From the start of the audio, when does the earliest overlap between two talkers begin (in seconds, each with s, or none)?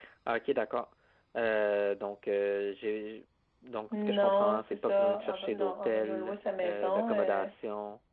3.9 s